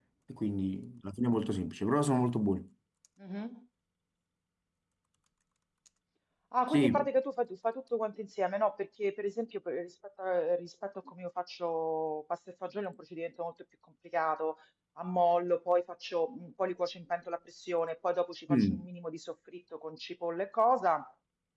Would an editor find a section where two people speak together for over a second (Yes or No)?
No